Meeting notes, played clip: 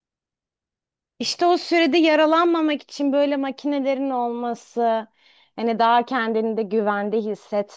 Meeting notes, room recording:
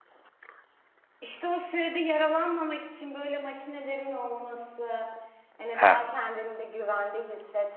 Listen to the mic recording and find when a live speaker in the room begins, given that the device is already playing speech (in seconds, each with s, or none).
5.7 s